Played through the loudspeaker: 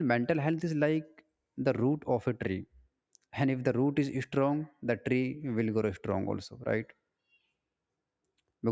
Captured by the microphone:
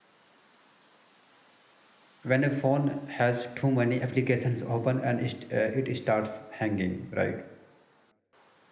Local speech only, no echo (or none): when a phone has too many applications open and it, uh, it starts hanging, right?